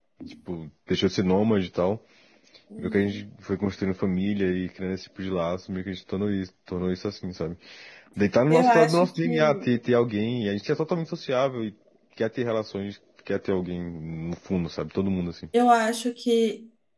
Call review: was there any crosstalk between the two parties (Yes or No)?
Yes